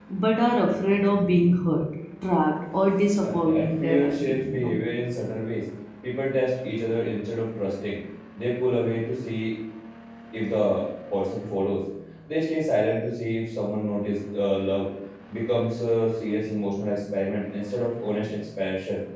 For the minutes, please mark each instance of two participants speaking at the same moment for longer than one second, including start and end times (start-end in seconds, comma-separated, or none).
3.2-4.8